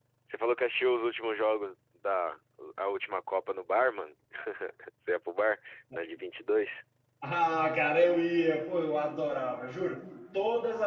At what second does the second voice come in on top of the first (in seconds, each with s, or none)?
none